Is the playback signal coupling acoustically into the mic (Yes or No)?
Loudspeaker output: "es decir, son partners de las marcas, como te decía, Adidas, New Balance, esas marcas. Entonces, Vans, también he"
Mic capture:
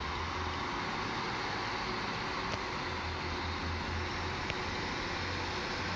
No